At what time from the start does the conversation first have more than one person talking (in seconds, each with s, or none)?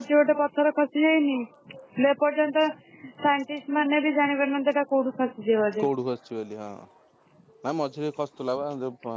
none